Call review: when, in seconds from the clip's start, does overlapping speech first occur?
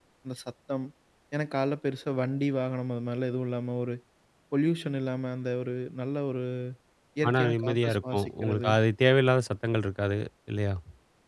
7 s

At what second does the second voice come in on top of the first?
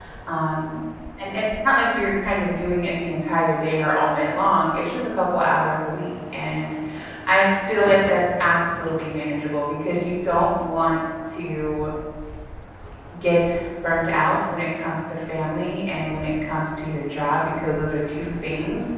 none

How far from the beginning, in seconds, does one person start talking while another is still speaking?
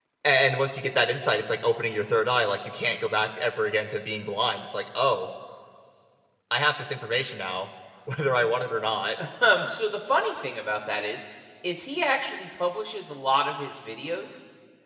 none

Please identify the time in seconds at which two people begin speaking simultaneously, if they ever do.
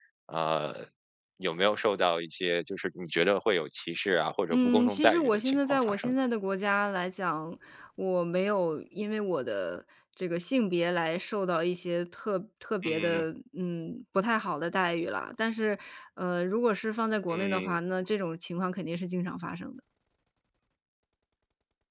5 s

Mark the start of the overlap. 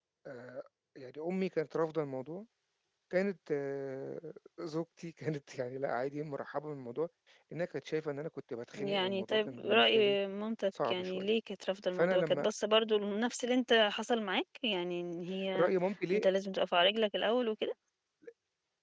9 s

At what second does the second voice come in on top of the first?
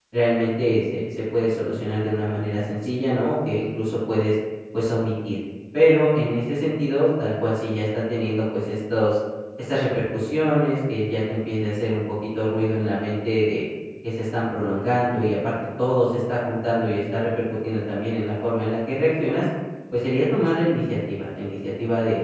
none

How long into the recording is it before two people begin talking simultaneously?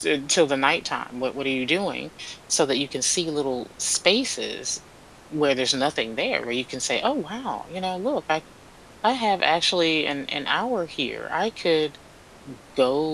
none

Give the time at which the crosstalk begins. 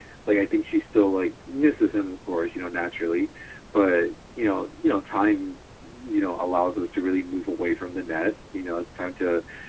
none

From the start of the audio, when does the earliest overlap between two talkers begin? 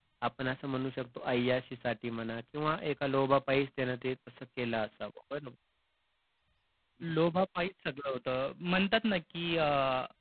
none

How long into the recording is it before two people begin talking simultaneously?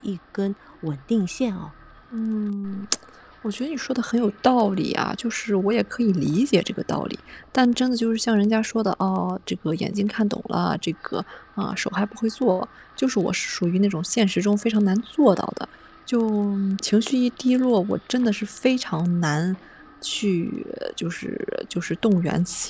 none

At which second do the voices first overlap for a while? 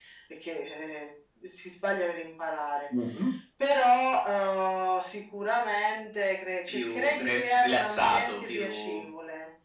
7 s

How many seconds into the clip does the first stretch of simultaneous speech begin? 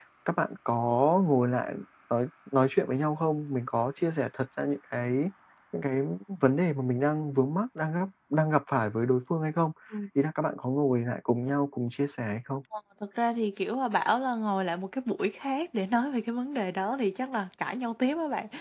none

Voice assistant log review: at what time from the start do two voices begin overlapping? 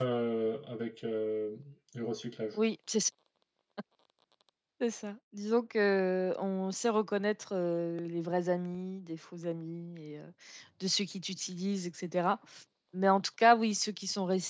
none

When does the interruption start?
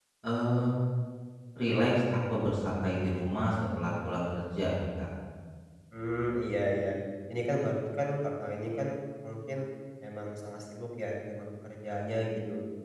none

